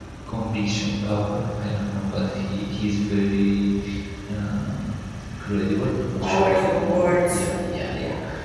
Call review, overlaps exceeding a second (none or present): present